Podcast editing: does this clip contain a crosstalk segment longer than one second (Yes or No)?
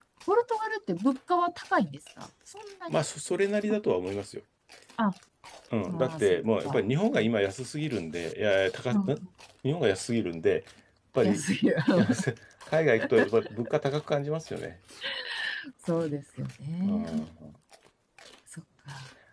Yes